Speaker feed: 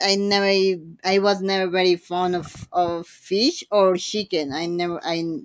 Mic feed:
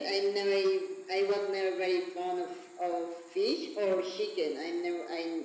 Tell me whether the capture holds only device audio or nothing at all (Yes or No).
Yes